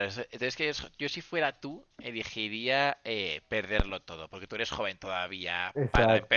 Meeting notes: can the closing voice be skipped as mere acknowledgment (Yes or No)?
Yes